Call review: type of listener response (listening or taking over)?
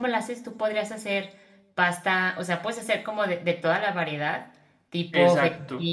listening